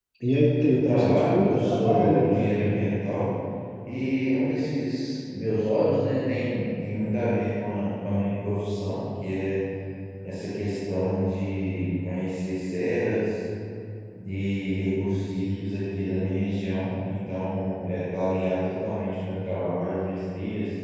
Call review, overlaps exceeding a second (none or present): present